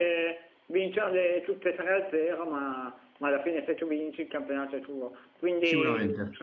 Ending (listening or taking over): listening